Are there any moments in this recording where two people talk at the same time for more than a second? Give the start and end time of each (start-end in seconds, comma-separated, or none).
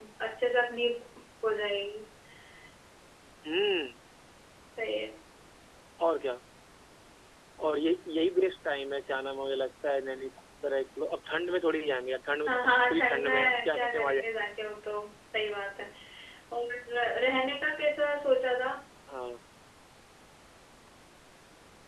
12.5-14.3